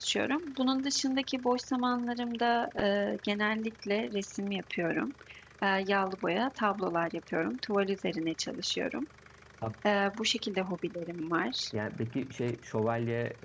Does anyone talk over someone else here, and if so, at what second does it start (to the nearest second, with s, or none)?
none